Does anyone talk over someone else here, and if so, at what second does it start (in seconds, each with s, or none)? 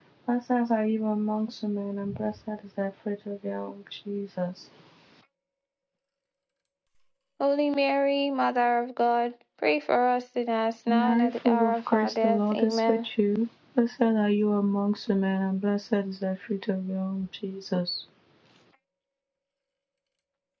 10.9 s